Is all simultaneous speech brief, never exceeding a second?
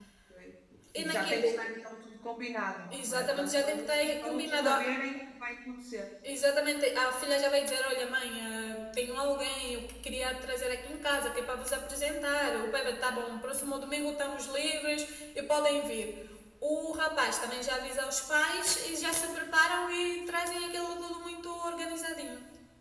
No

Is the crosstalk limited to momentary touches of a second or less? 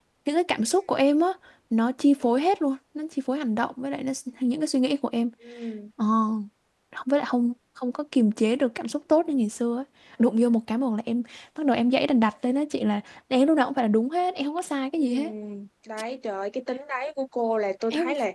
Yes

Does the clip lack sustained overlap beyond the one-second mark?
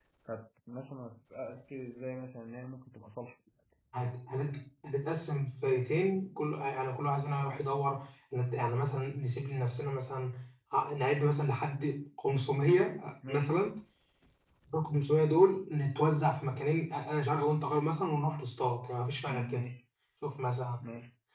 Yes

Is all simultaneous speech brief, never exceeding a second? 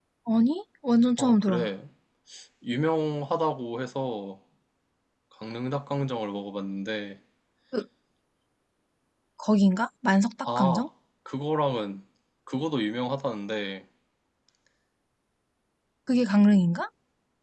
Yes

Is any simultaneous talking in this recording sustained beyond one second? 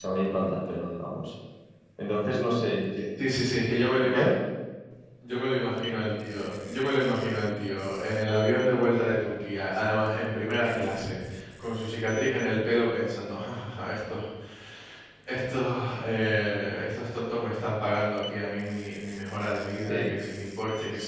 No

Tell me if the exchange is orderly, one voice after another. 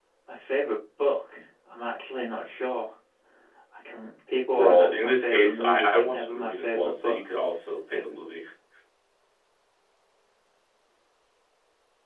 No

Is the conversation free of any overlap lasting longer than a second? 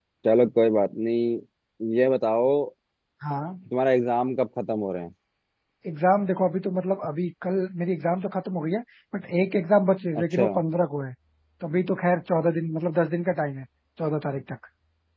Yes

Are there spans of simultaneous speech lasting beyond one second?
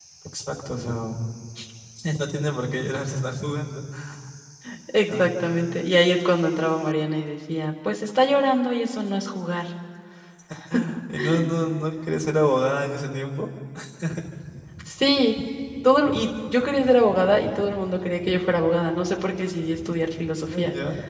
No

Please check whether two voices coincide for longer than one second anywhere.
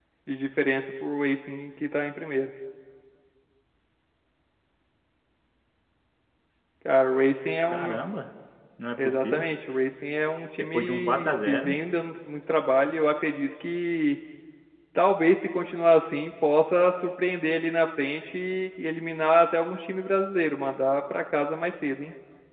Yes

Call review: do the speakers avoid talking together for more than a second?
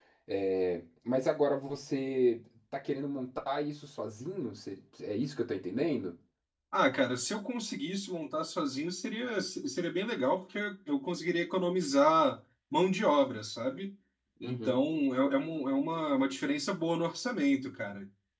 Yes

